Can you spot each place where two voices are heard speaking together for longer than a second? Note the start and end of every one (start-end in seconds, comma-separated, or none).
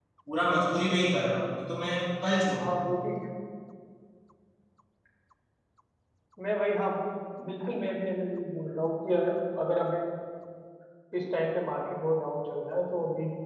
none